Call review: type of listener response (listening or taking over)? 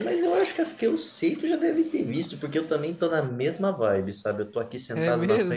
listening